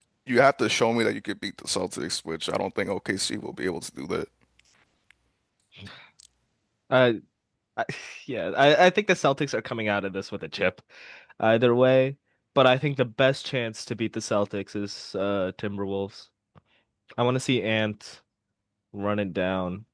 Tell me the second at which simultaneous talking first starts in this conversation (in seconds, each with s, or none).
none